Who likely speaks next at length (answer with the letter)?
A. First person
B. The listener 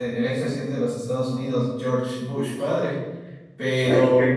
A